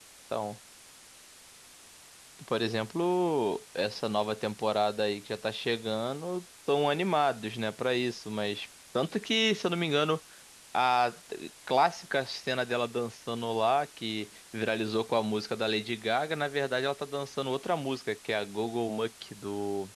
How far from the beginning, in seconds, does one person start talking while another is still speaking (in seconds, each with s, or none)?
none